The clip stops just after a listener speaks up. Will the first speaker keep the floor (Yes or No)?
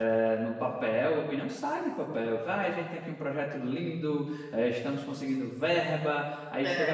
Yes